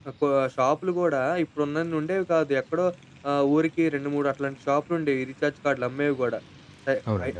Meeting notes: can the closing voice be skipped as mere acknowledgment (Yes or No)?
Yes